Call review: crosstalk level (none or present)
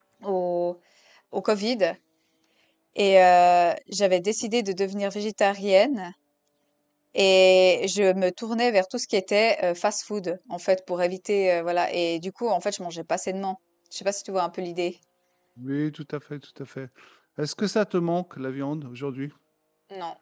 none